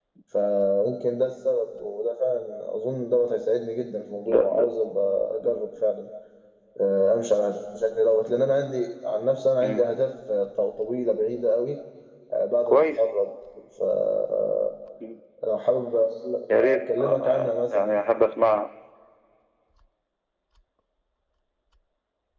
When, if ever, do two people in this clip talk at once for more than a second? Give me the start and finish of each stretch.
16.6-18.0

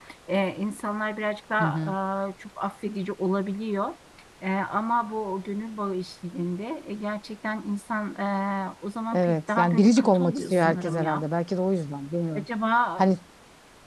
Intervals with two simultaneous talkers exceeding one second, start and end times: 9.1-11.2

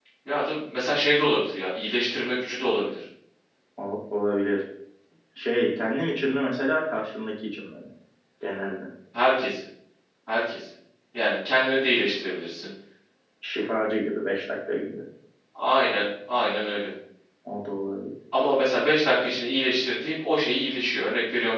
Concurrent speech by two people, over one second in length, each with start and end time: none

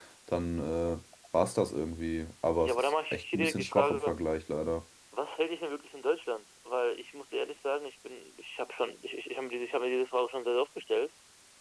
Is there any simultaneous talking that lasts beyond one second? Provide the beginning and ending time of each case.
2.6-4.2

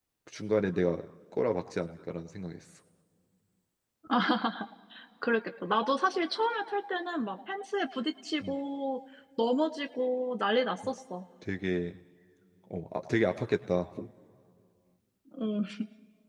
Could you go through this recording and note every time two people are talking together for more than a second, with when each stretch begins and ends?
none

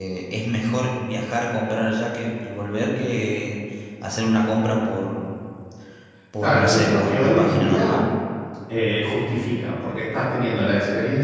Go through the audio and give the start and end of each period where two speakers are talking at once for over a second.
6.4-8.0

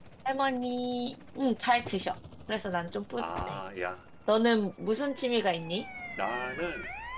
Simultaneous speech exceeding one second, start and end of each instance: none

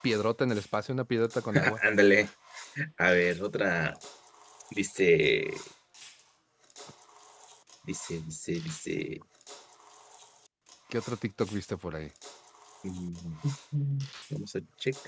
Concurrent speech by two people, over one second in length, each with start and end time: none

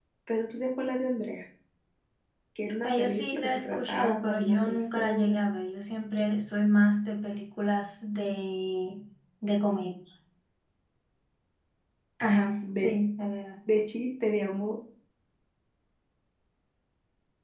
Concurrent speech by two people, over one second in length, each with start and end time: 2.8-5.4

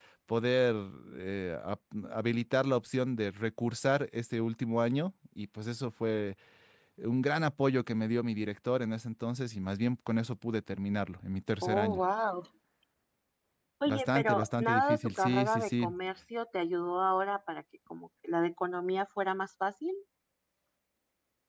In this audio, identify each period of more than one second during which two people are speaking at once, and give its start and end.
13.9-15.9

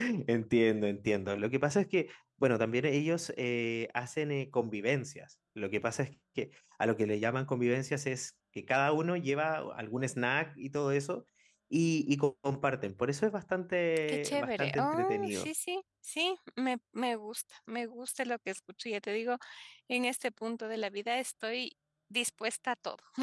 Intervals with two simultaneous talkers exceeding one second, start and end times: 14.1-15.5

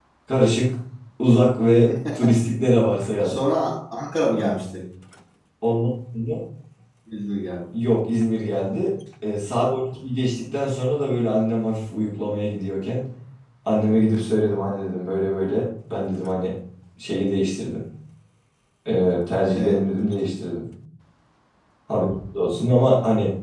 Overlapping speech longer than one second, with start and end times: none

